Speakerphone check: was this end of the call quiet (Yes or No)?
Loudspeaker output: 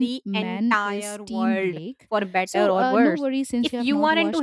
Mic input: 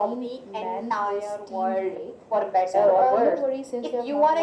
Yes